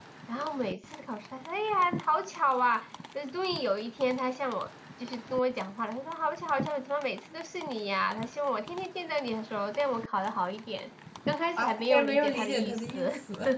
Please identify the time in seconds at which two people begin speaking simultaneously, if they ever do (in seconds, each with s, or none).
11.6 s